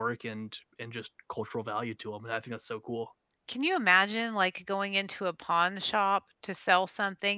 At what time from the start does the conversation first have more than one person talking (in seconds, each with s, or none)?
none